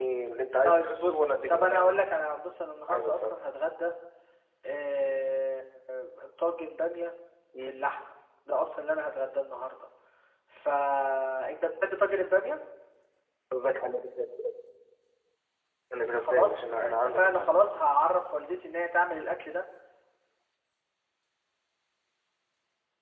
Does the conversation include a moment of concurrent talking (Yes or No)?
Yes